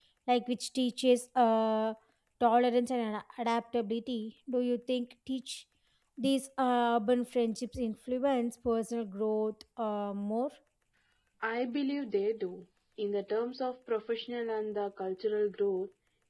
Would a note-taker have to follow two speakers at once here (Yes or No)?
No